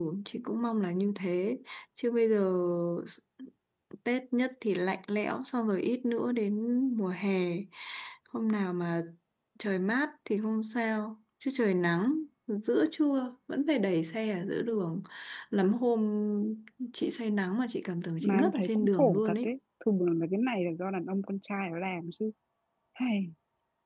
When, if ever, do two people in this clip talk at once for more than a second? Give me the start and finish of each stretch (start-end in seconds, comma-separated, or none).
18.2-19.5